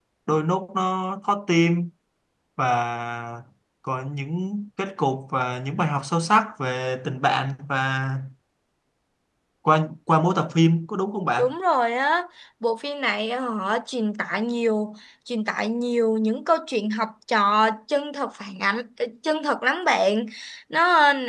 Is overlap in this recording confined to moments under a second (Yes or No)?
Yes